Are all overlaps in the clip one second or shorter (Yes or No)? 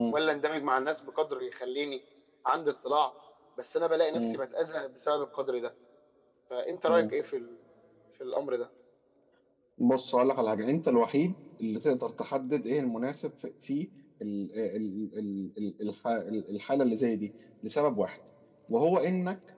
Yes